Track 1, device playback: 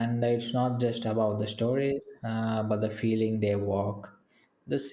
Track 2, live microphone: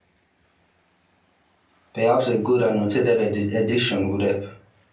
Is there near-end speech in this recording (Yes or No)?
Yes